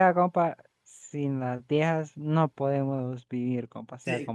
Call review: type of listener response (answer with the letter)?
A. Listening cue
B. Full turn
B